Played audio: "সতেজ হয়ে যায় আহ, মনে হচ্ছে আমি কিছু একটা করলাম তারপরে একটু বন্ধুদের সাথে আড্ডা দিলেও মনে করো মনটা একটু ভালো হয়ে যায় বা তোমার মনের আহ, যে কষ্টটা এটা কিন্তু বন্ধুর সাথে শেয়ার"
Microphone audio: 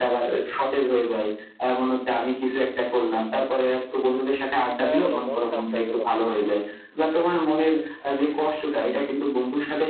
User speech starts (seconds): 4.8 s

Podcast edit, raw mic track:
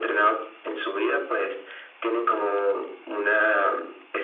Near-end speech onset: none

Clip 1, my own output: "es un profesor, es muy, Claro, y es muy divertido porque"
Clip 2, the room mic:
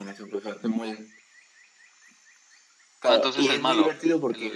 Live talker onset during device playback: 3.1 s

